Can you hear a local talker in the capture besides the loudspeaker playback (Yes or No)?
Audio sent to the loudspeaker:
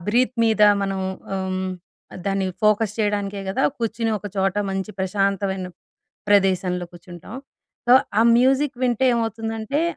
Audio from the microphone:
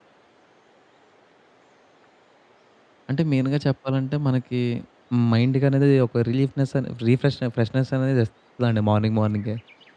Yes